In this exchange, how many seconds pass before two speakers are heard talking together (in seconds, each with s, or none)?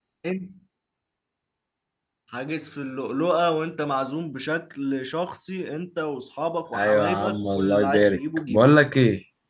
6.7 s